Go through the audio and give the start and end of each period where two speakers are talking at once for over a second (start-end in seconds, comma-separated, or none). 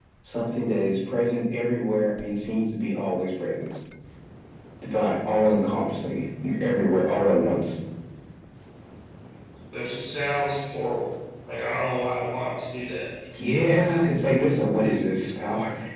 none